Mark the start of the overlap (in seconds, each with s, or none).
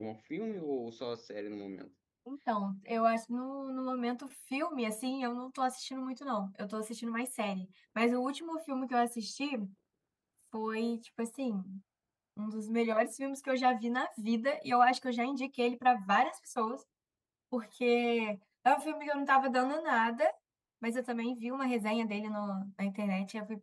none